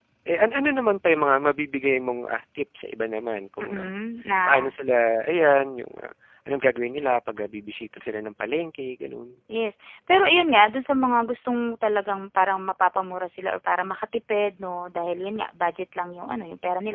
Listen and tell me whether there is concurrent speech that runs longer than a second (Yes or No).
No